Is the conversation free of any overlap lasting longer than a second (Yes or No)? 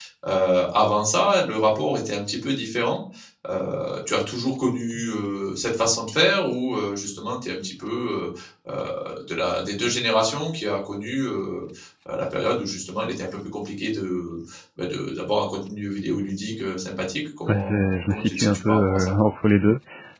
No